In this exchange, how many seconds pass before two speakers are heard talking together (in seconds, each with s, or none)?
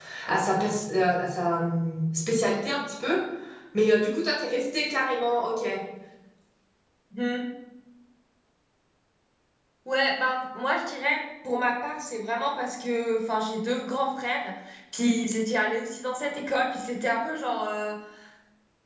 none